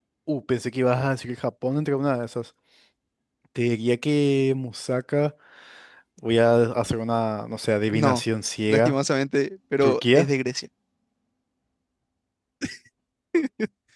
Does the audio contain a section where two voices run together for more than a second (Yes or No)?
No